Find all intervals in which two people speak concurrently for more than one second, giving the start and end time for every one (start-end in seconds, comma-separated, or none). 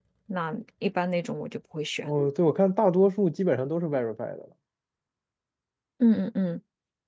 none